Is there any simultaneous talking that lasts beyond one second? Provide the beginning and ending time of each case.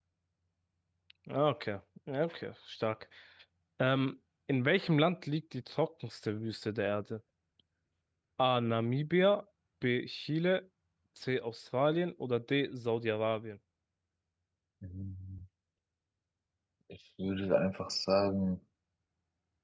none

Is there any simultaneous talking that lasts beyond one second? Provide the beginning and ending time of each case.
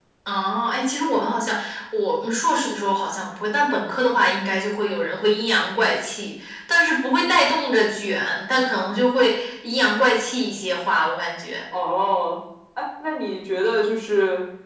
none

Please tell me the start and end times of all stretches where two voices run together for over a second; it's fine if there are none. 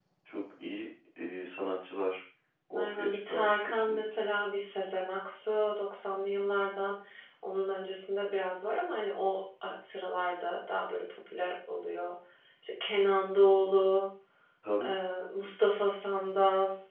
2.8-4.2

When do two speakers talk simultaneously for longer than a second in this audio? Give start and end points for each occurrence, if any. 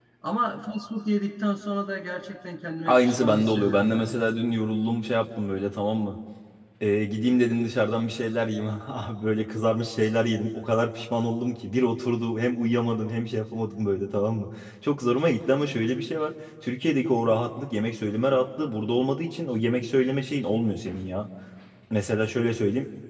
2.9-4.2

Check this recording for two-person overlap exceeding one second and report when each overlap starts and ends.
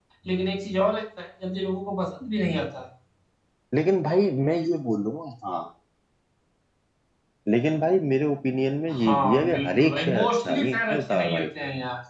9.0-11.5

